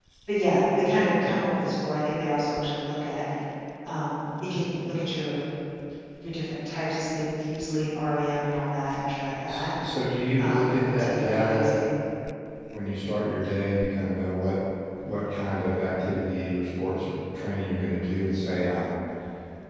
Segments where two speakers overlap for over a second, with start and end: 10.4-11.8

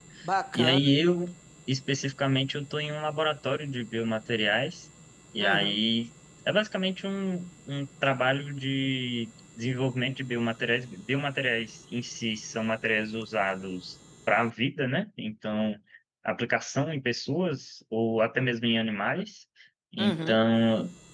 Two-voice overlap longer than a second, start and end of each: none

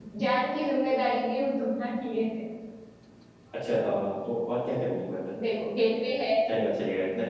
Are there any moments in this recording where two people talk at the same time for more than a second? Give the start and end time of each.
none

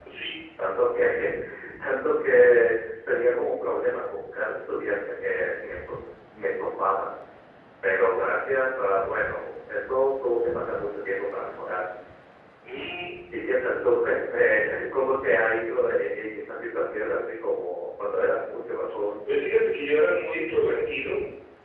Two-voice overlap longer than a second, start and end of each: none

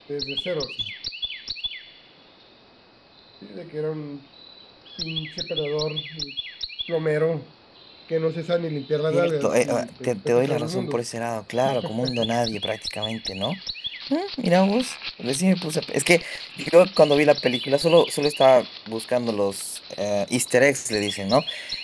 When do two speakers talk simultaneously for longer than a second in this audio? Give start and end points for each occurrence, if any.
9.1-11.0

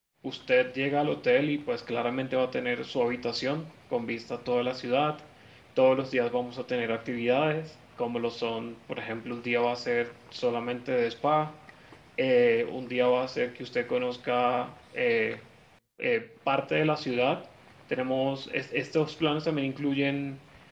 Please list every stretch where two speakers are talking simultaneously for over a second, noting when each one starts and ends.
none

